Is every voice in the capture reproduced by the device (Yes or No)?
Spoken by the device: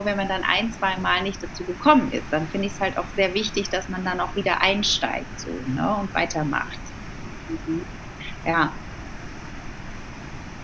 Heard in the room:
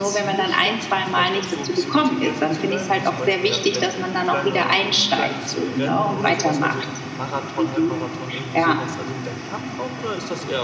No